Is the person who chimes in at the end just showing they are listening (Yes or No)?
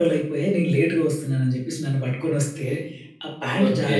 Yes